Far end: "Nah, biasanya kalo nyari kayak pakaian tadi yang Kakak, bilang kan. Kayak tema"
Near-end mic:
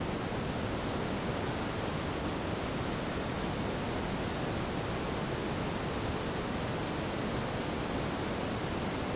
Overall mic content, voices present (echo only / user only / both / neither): neither